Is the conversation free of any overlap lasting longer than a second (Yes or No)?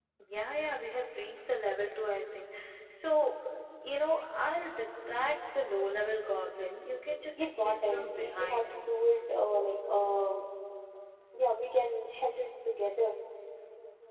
No